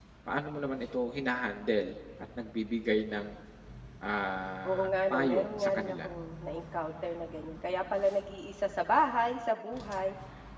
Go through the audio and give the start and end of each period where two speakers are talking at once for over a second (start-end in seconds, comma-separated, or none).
4.7-6.0